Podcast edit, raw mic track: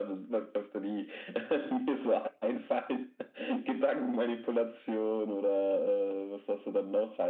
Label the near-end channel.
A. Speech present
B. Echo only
B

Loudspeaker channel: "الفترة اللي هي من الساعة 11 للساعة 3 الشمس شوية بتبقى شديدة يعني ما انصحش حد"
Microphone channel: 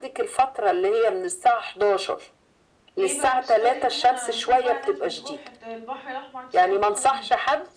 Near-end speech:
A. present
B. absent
A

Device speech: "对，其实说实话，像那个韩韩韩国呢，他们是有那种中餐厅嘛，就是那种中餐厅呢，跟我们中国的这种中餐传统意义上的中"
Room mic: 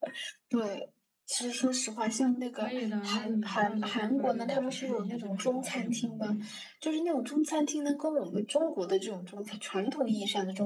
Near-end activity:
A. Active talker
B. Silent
A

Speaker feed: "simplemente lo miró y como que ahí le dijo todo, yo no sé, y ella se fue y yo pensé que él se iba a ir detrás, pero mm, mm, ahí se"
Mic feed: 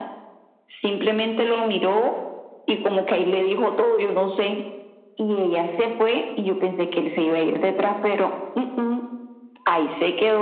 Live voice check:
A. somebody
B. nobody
B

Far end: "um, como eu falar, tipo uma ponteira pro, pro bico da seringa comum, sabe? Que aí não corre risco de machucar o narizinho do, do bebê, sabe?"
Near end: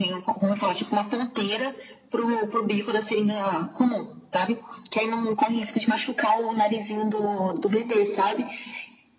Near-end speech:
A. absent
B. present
A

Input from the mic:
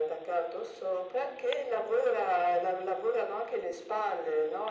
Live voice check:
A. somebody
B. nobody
B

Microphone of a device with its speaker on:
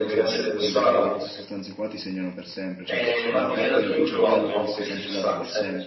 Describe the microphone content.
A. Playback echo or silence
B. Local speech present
B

